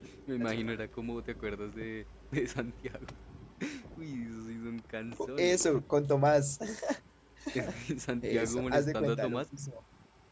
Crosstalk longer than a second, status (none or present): present